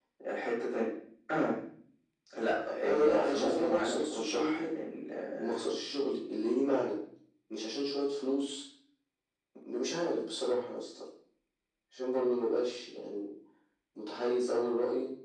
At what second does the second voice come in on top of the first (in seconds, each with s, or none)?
2.9 s